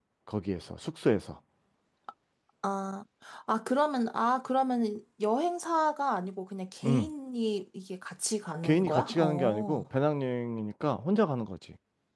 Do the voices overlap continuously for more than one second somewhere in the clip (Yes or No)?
Yes